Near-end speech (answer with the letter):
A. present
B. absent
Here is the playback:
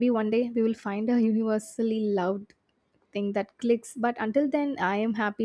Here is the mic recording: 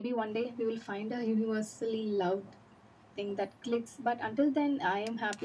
B